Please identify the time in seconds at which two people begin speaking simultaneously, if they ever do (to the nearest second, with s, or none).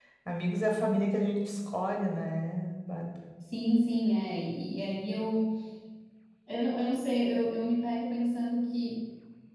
none